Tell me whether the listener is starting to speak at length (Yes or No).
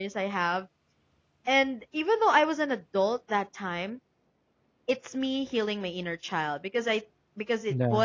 No